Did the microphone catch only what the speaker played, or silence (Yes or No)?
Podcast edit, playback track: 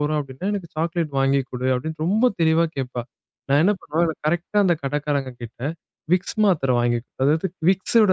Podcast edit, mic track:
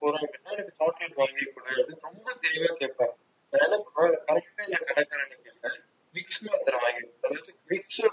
Yes